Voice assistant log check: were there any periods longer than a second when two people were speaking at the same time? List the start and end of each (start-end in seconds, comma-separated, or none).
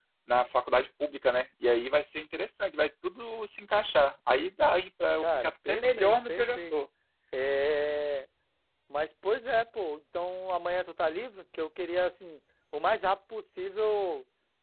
5.2-6.7